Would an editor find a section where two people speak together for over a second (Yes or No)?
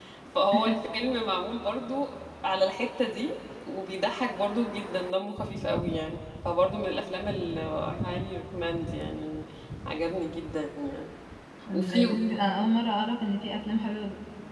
No